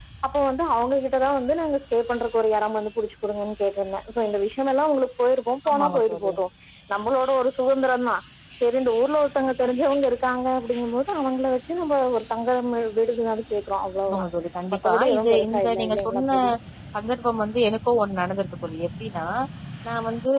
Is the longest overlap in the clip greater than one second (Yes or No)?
Yes